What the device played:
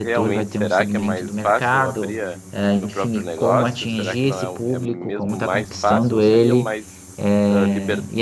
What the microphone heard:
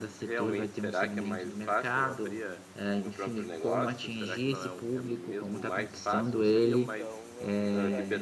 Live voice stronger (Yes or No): No